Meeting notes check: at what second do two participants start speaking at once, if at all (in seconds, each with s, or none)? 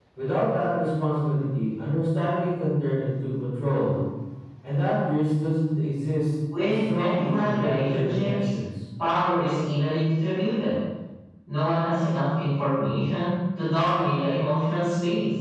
6.5 s